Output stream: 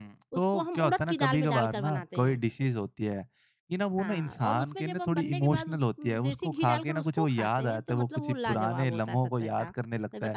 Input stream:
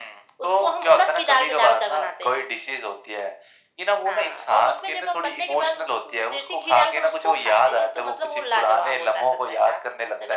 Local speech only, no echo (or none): none